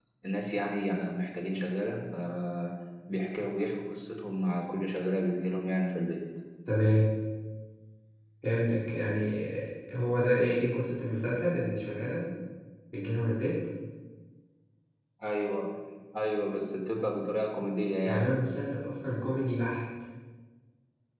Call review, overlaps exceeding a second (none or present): none